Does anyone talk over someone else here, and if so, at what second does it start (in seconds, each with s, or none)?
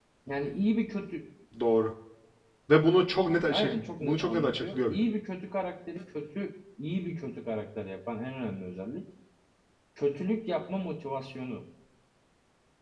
3.5 s